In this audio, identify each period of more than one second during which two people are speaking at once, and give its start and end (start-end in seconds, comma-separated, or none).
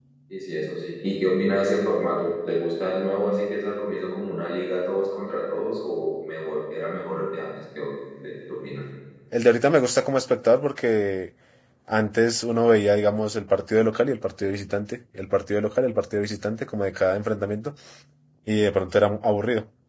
none